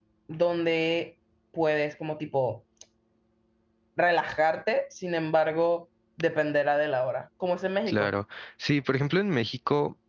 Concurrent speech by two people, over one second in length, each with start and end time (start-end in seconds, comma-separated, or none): none